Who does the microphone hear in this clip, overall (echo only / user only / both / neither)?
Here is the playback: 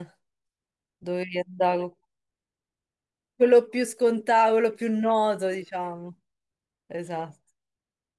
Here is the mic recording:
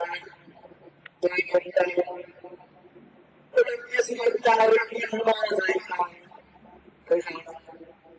echo only